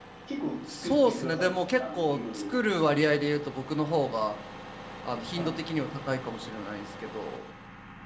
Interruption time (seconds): 1 s

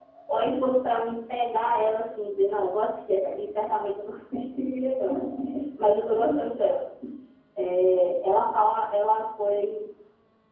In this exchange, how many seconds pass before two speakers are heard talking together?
none

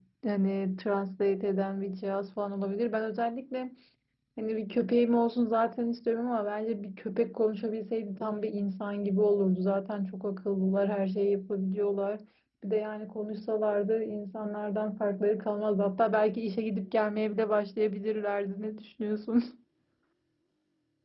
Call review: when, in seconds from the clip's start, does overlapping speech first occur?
none

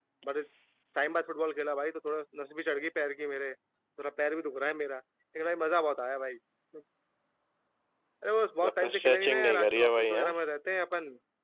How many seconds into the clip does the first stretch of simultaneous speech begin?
9 s

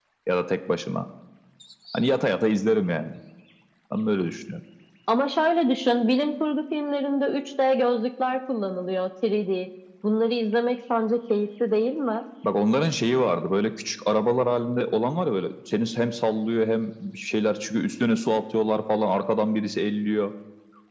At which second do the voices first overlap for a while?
none

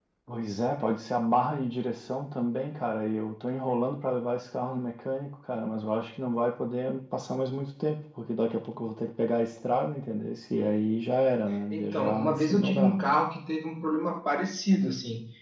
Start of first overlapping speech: 12 s

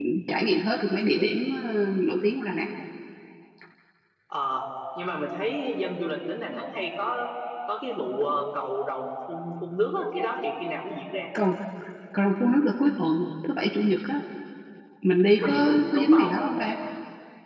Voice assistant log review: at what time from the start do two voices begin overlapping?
15 s

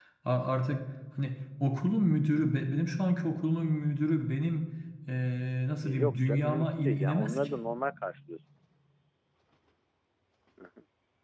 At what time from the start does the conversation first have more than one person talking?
6 s

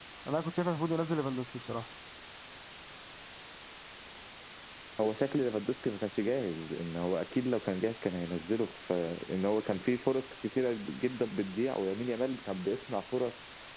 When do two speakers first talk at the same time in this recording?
none

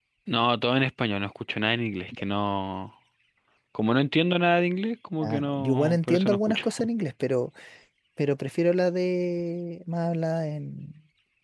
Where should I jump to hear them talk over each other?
5 s

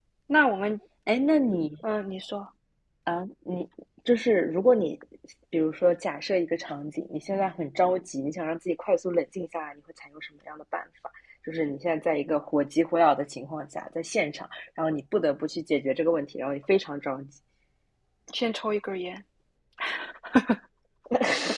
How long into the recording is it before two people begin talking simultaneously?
none

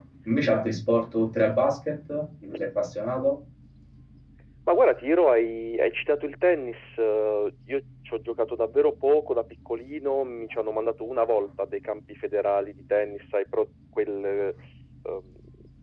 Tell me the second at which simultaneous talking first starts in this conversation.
none

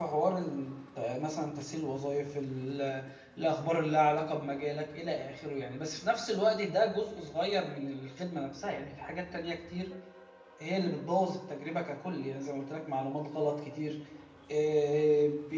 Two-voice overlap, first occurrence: none

